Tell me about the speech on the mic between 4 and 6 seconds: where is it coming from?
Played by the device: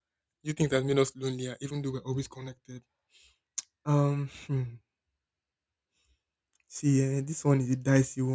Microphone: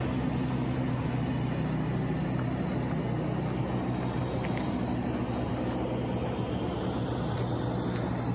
neither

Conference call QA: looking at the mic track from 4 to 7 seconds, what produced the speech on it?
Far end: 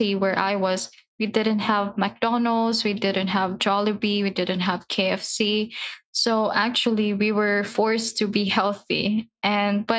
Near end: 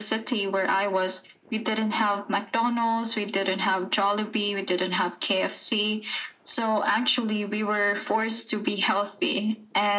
echo only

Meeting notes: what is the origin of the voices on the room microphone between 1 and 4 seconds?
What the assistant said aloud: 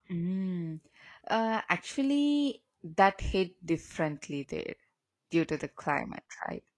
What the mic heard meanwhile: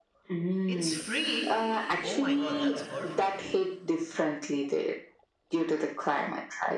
both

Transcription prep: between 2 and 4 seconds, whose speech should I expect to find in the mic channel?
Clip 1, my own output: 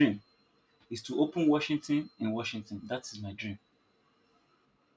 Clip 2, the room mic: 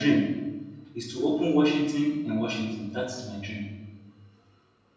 echo only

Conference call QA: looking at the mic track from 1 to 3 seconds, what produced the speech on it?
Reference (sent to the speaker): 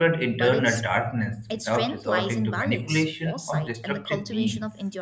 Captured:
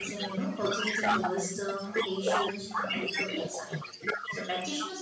both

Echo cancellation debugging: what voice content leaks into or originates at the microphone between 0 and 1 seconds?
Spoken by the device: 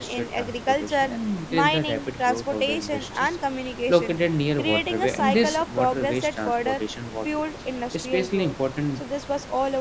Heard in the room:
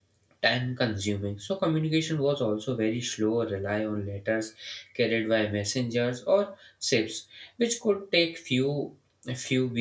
user only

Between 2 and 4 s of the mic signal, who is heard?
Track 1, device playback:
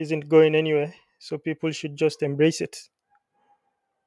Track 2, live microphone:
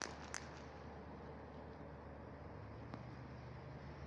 neither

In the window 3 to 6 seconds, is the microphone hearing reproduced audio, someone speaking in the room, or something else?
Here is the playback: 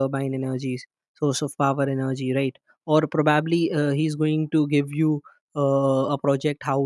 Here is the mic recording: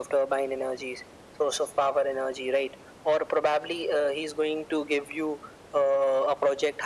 echo only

